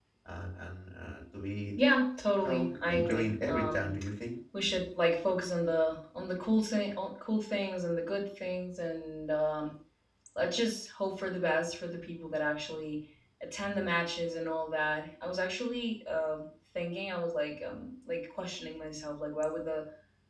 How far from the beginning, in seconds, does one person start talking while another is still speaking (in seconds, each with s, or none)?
2.4 s